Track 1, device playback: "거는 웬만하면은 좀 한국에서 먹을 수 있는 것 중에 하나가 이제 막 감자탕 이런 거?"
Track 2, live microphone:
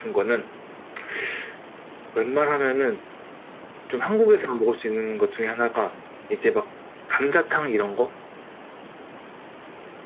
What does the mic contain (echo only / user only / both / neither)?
echo only